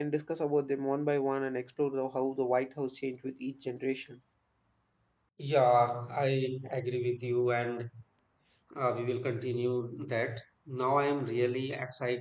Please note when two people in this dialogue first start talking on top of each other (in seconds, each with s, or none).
none